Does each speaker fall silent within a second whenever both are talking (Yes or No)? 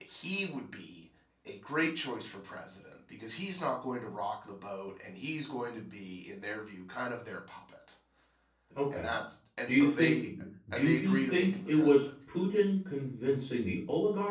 No